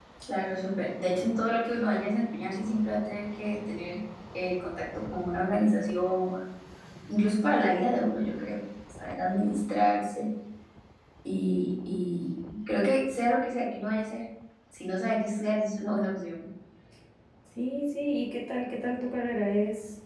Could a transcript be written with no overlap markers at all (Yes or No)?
Yes